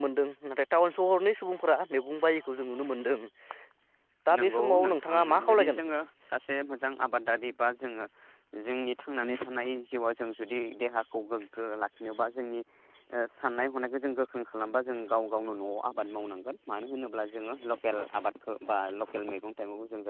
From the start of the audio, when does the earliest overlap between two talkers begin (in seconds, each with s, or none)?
4.4 s